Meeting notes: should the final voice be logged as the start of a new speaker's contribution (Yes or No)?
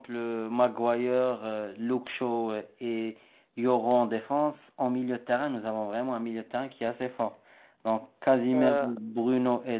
No